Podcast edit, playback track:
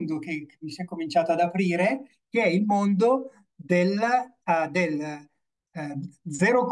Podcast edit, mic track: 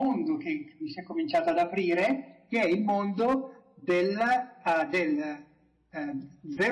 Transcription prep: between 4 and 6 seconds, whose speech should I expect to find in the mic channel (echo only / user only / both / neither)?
echo only